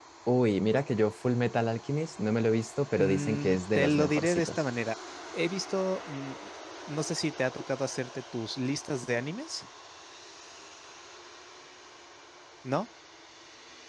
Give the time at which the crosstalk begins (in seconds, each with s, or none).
3.0 s